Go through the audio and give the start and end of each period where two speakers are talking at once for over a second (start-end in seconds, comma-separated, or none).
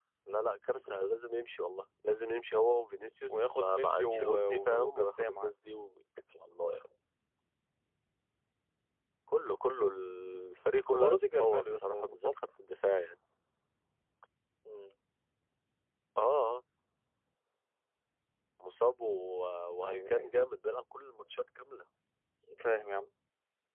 3.3-5.5, 10.9-12.3